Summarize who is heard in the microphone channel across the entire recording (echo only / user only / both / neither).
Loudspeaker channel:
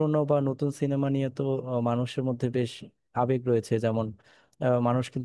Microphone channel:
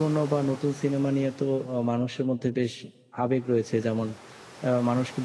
echo only